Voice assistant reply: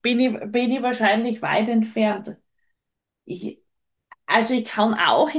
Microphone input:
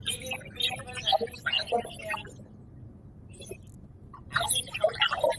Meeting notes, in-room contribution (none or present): none